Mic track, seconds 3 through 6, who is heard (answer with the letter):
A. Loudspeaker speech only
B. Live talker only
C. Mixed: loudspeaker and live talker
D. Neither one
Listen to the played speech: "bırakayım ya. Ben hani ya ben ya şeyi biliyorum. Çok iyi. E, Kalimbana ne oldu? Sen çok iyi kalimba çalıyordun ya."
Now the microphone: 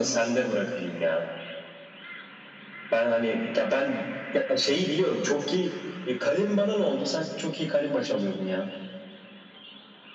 A